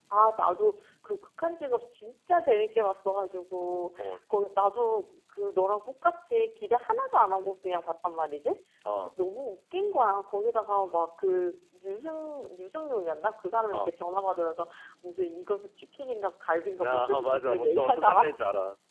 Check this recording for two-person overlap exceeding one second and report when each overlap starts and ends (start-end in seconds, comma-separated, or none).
16.8-18.4